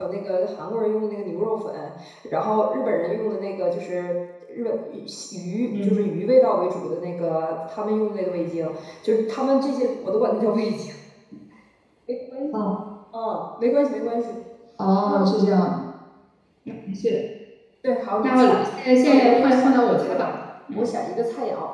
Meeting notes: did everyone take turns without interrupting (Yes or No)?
No